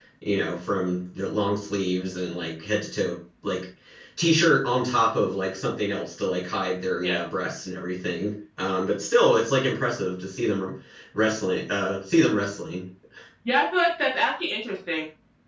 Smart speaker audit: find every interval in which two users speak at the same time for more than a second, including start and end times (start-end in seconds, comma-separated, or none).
none